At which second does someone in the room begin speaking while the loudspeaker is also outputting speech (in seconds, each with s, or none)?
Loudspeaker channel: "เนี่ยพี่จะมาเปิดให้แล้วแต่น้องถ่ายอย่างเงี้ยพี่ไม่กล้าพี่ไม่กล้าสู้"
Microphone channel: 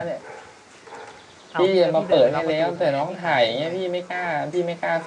1.5 s